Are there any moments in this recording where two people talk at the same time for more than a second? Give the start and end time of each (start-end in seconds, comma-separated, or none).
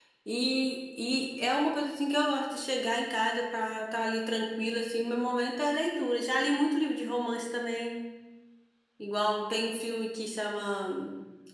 none